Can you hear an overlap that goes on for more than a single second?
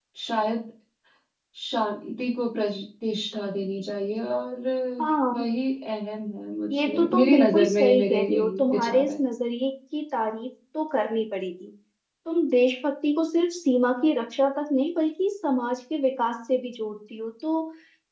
Yes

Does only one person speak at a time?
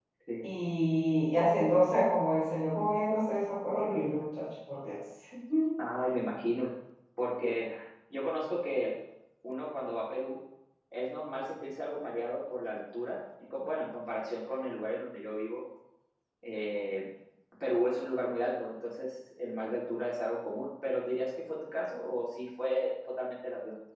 Yes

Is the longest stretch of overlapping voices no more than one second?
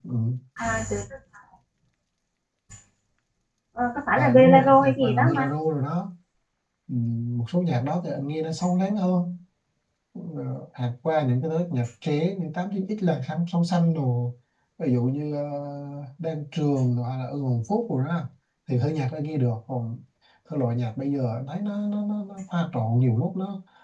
No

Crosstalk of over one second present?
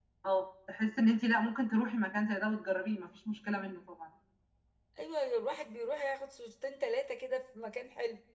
No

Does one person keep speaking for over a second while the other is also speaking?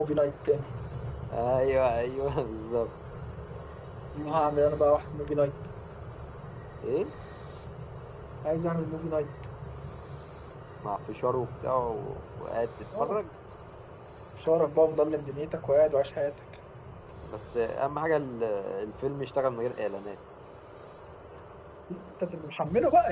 No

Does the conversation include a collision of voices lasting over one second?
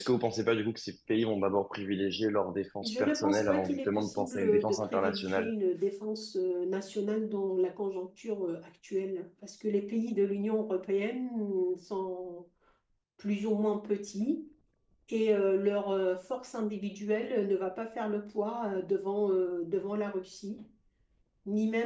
Yes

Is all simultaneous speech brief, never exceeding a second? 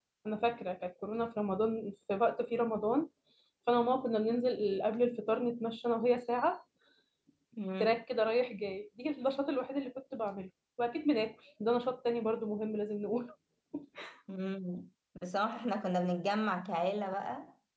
Yes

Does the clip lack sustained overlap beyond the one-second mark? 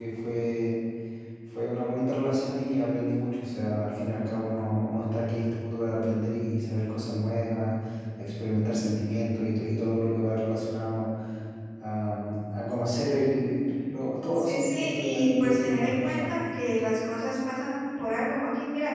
No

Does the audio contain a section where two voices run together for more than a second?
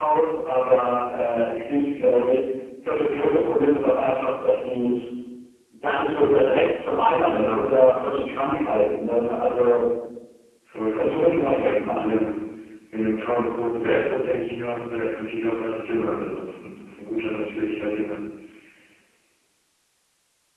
Yes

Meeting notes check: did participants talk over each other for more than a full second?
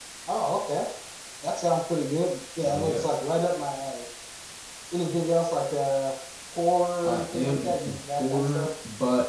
Yes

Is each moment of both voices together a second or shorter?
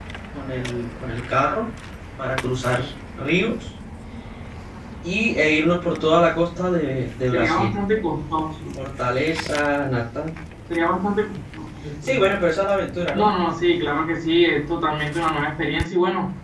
Yes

